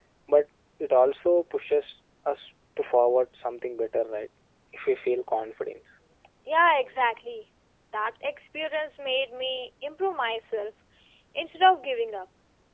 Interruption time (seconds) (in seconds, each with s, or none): none